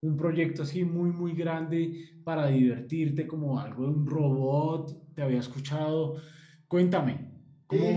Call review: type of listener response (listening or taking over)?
taking over